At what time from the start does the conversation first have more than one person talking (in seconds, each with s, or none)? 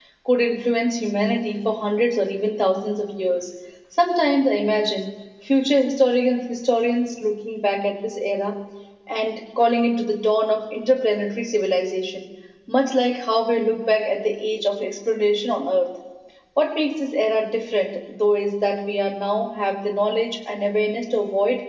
none